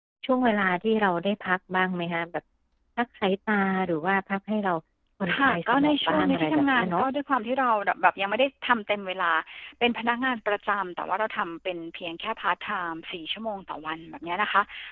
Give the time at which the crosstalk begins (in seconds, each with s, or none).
5.3 s